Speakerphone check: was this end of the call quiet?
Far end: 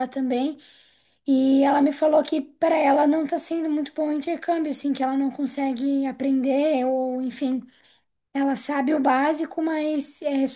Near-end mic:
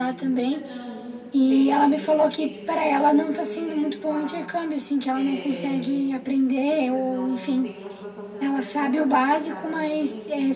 No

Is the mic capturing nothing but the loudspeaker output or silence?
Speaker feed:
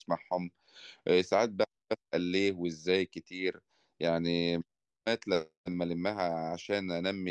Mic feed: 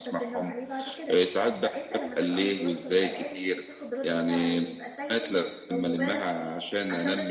No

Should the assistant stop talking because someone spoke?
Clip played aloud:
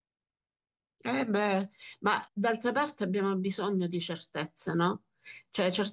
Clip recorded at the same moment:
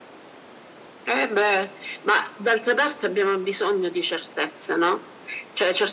No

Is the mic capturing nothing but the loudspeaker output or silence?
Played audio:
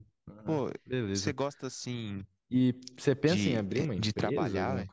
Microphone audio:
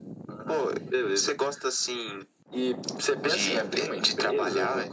Yes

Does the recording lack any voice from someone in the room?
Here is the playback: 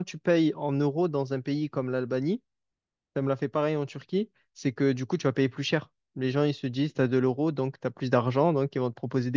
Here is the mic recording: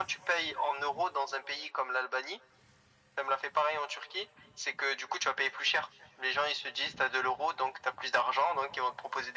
Yes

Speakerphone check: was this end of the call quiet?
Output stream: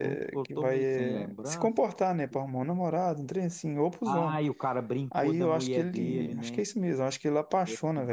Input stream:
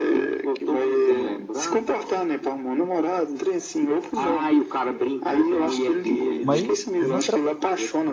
No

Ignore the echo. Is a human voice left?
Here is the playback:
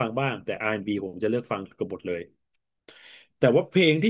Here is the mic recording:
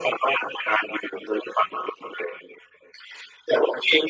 No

